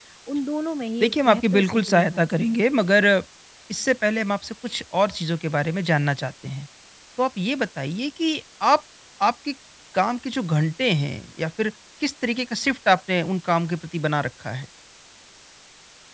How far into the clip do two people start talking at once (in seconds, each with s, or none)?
1.0 s